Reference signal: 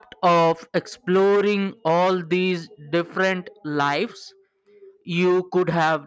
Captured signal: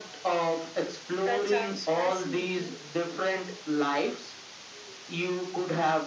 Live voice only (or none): That sounds fascinating.